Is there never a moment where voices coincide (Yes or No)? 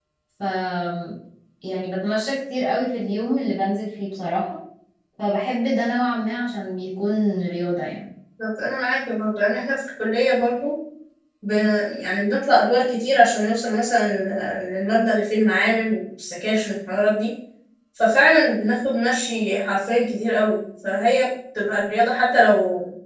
Yes